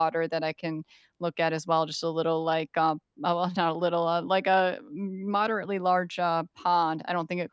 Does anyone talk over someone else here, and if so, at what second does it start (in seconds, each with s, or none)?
none